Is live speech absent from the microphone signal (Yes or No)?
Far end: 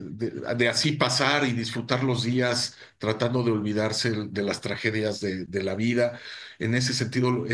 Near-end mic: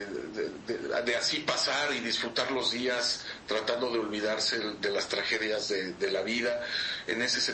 Yes